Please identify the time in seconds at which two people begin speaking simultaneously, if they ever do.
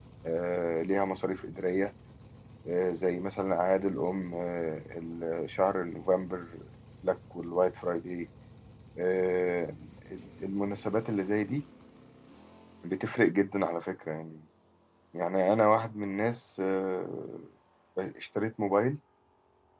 none

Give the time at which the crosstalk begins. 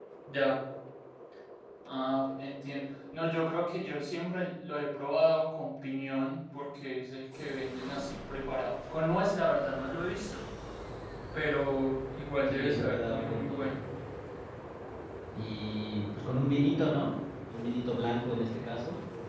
12.5 s

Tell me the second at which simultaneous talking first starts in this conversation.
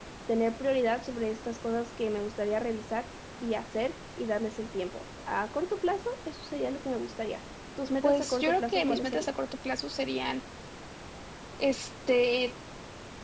8.0 s

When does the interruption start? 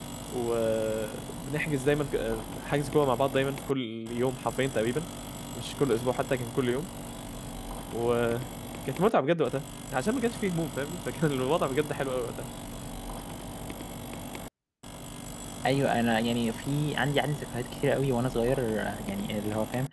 none

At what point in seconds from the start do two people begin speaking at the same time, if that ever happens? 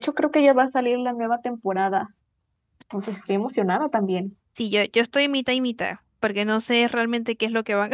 none

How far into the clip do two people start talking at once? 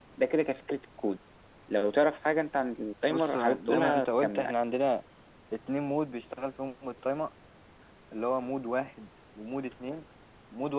3.1 s

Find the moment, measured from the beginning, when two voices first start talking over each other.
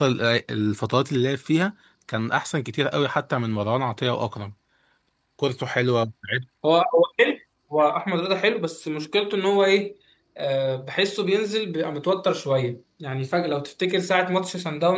none

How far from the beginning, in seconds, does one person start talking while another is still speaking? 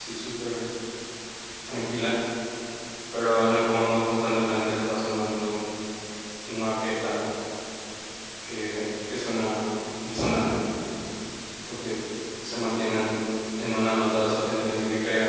none

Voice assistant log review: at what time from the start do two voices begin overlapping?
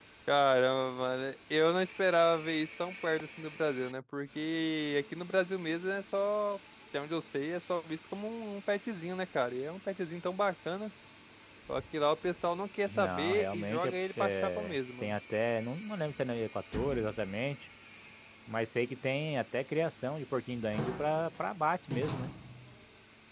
12.9 s

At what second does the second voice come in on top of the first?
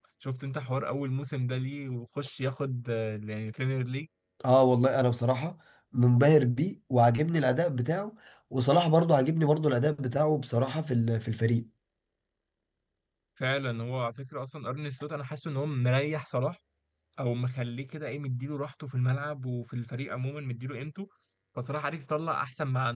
none

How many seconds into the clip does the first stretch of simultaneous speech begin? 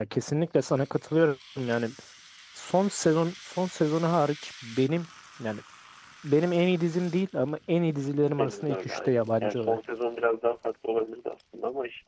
8.3 s

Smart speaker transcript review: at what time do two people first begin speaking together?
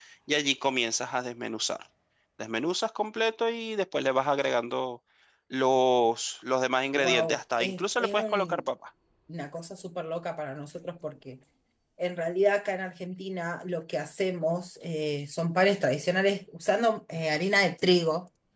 6.9 s

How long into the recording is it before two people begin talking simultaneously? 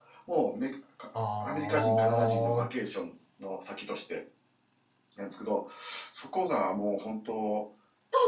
1.4 s

